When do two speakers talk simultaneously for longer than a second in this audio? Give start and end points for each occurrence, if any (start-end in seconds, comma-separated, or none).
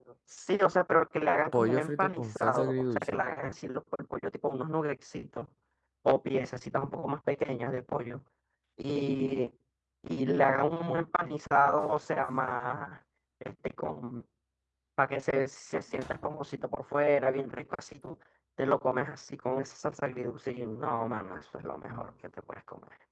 1.5-3.2